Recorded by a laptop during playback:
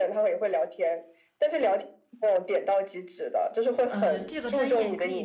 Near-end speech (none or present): present